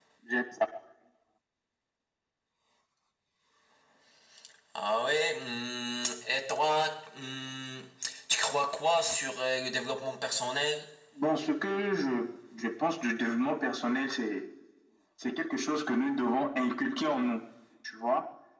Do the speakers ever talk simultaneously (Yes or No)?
No